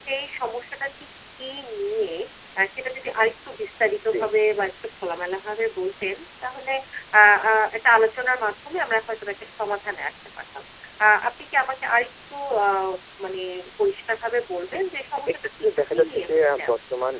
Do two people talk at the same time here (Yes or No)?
Yes